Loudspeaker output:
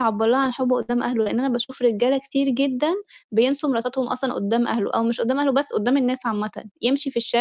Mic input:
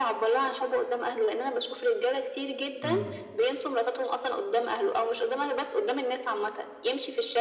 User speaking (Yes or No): Yes